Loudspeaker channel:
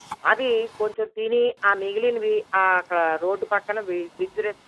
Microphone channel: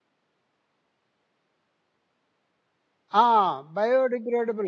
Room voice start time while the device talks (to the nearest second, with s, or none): 3 s